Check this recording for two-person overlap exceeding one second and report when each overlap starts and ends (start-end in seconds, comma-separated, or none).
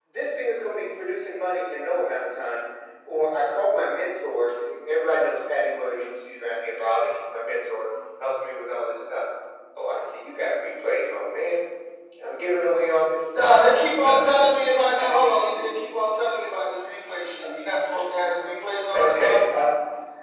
13.4-15.7